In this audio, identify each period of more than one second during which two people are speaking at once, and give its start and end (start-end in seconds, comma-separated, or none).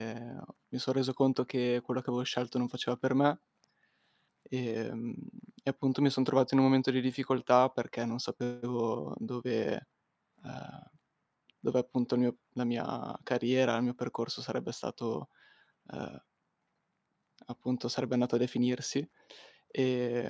none